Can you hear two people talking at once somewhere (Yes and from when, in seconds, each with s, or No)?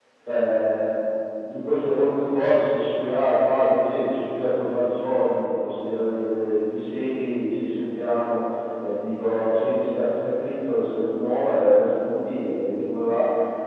No